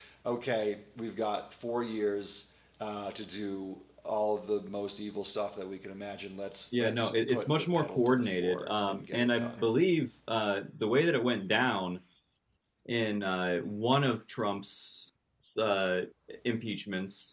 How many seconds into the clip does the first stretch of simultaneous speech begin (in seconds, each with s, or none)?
6.7 s